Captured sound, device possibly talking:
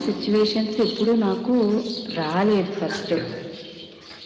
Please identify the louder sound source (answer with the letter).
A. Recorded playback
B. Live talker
A